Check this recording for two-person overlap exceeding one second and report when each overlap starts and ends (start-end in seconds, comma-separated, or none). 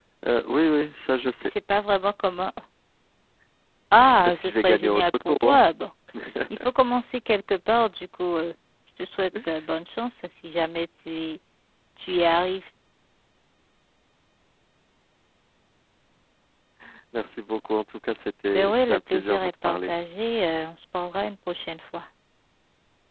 4.2-5.6, 18.5-19.9